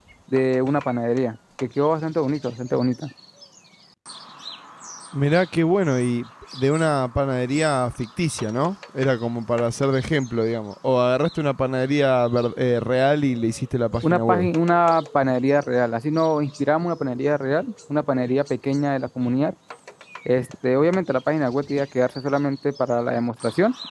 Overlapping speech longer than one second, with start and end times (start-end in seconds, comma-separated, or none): none